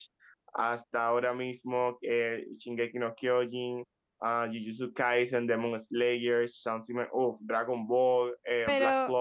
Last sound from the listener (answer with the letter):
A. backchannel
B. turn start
B